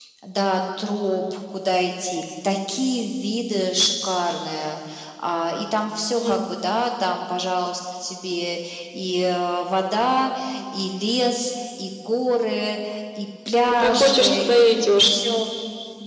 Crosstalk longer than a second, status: present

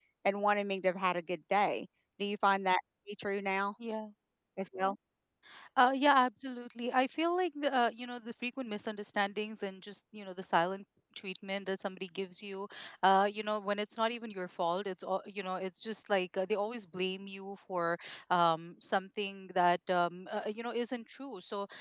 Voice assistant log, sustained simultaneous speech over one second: none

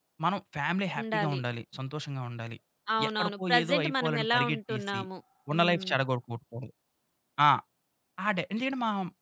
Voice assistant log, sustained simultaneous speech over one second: present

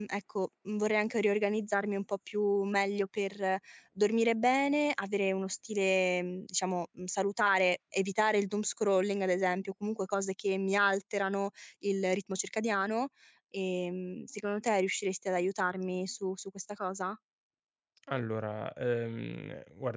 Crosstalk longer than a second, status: none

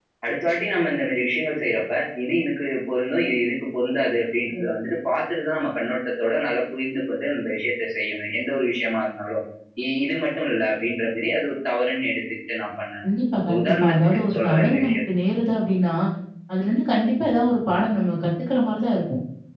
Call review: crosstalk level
present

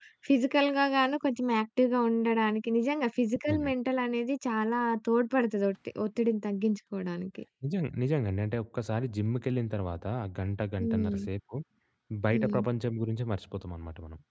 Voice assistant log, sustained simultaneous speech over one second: none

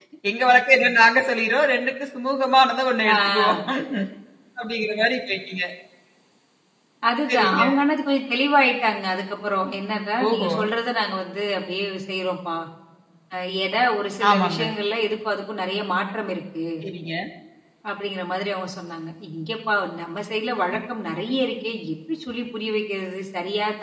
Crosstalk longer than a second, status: none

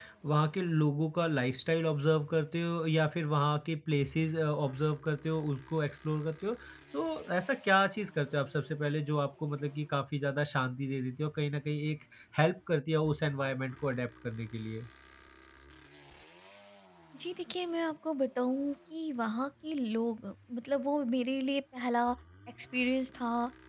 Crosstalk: none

